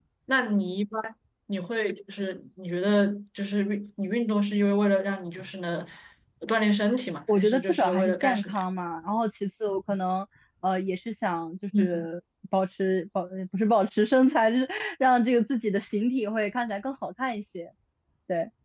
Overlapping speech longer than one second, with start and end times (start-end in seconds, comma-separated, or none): 7.3-8.6